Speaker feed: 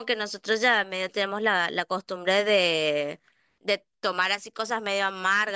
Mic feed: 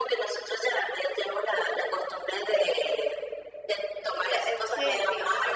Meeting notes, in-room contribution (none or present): present